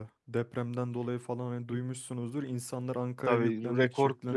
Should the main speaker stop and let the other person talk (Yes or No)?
Yes